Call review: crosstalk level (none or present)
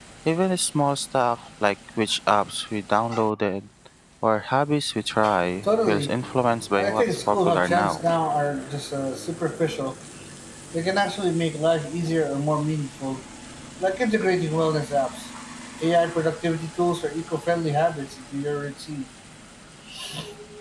present